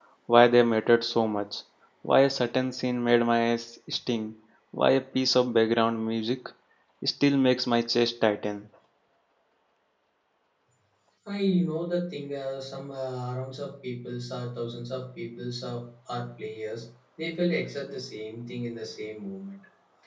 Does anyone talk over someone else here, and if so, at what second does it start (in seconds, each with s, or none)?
none